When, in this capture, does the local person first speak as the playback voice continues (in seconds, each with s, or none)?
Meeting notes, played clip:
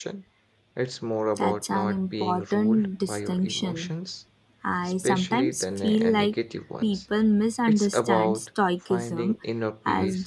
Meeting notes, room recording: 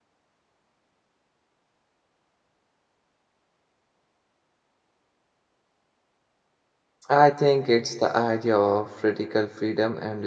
7.1 s